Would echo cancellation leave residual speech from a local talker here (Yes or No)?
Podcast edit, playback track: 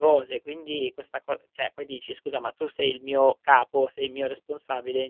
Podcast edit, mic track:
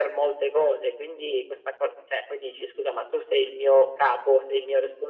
No